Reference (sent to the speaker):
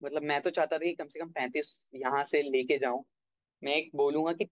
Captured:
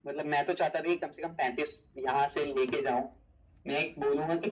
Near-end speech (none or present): none